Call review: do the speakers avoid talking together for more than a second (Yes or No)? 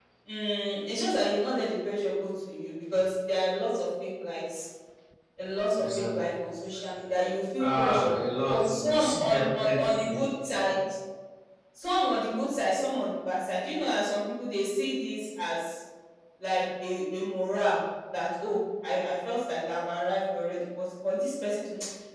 No